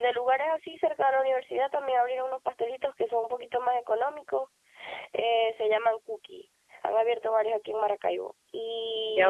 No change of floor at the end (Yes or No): No